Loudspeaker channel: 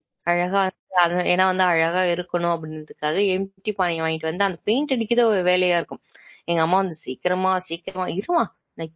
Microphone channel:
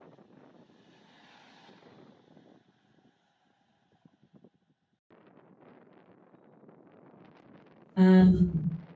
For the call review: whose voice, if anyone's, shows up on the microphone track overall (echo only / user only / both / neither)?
user only